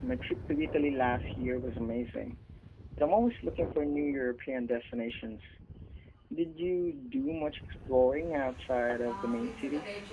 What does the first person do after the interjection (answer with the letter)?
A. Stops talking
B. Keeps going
A